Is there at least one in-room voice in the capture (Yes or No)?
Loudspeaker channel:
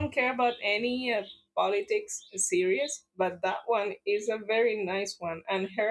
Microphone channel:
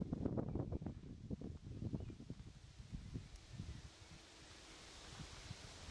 No